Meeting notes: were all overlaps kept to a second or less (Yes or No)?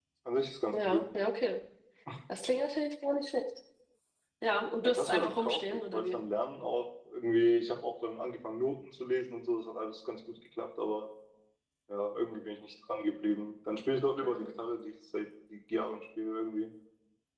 No